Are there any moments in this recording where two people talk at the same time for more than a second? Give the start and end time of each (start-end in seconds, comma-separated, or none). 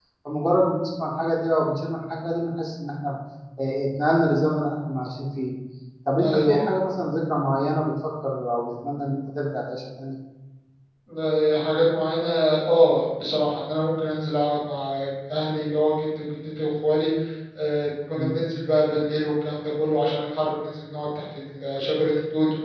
none